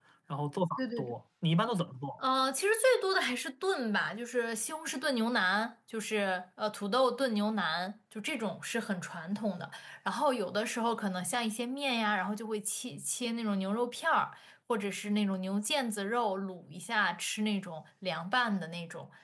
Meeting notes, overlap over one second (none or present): none